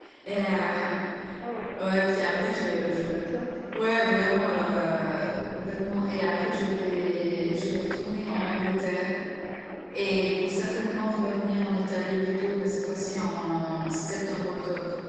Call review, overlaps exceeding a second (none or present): none